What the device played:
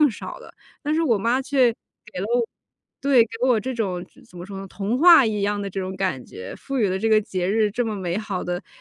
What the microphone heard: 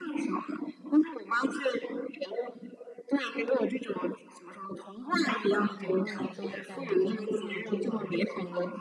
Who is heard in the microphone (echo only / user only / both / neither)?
both